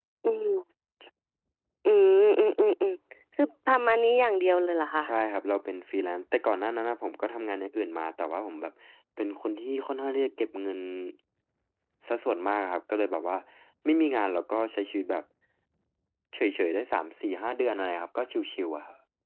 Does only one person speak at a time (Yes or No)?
Yes